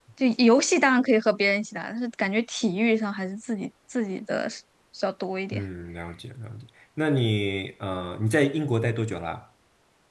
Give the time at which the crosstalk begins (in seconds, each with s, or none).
none